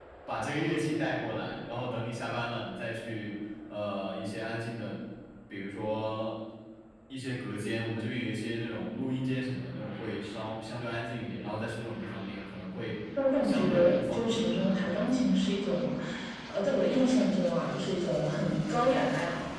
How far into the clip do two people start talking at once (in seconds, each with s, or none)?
13.4 s